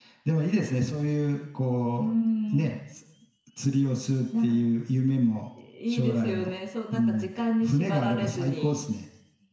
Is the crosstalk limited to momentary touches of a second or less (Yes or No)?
No